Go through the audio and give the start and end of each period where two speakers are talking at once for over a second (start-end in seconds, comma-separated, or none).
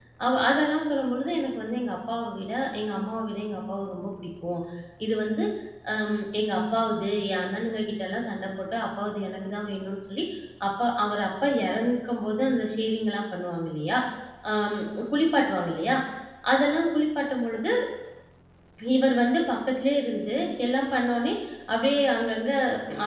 none